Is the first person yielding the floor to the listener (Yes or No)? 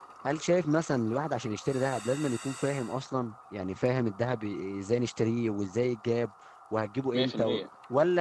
No